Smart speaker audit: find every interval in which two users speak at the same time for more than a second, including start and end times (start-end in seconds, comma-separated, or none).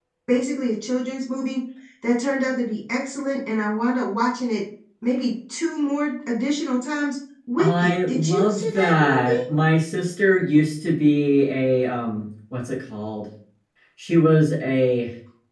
7.6-9.4